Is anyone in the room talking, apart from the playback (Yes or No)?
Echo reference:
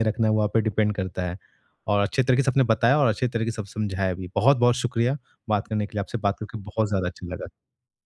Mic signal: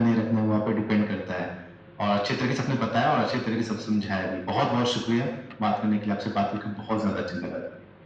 No